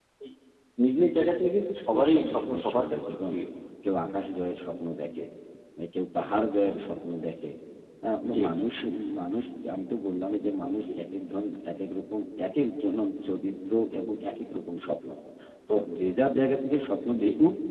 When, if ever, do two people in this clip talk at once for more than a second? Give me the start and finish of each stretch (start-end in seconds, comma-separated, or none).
1.9-3.3